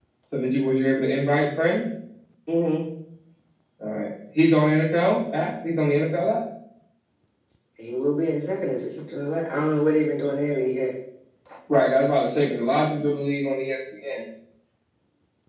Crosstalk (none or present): none